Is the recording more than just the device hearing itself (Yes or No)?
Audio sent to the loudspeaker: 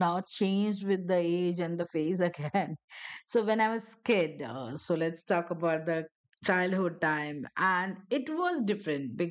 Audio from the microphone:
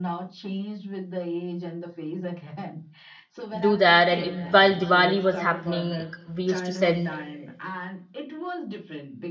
Yes